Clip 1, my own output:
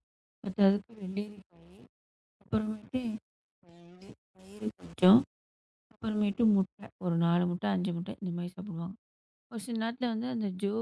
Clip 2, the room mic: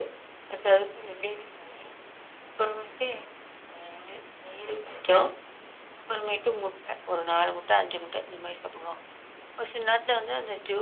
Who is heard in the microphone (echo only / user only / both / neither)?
echo only